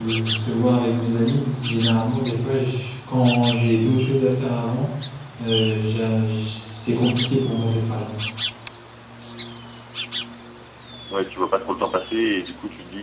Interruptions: none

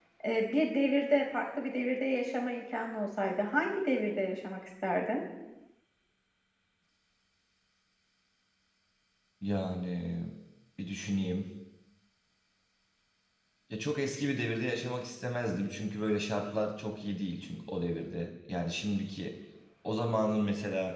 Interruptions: none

